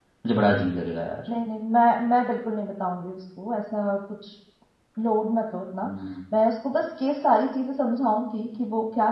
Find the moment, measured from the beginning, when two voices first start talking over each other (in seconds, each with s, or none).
none